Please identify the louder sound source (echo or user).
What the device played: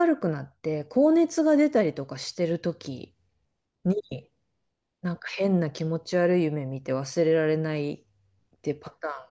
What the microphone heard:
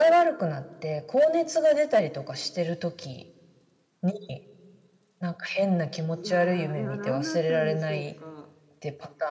echo